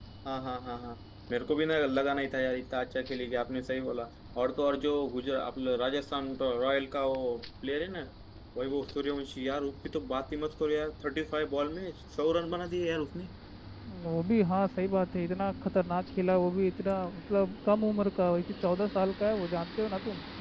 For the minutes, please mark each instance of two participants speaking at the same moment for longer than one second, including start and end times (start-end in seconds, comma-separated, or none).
none